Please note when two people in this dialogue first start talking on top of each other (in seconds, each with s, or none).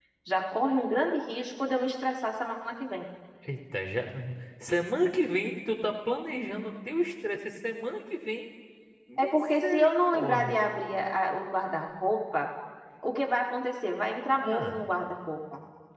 9.2 s